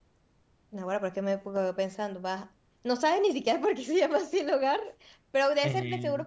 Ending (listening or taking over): listening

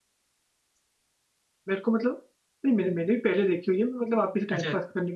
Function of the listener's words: listening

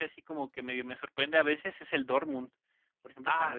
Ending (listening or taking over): listening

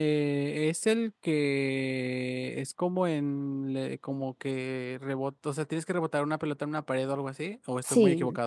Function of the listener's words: taking over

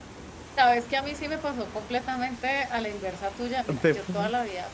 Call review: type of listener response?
listening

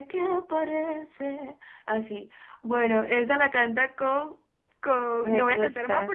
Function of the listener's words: listening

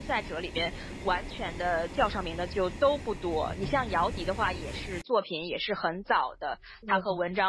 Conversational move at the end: listening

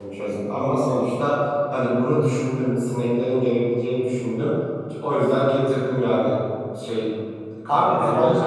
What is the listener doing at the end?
taking over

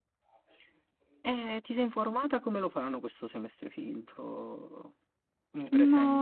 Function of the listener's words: taking over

